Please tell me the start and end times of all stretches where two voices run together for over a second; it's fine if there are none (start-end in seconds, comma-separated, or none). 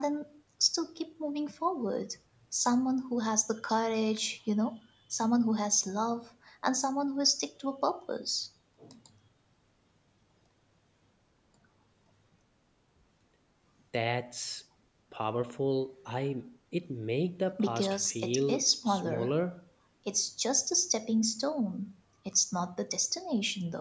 17.6-19.3